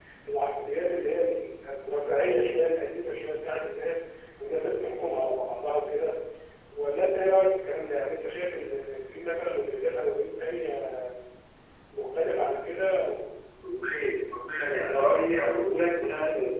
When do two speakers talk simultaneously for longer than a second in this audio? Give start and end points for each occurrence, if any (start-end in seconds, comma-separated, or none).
none